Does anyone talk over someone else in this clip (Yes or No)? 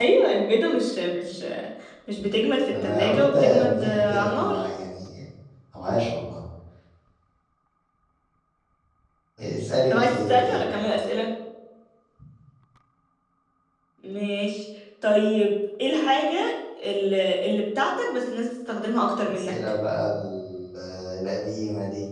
Yes